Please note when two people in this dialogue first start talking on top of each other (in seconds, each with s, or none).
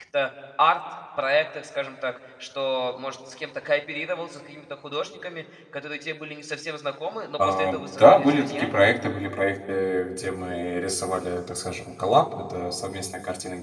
7.4 s